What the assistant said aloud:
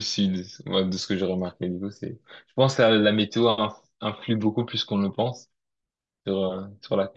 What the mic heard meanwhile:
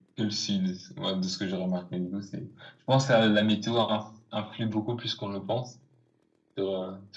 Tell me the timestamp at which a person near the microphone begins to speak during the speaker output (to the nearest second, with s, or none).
none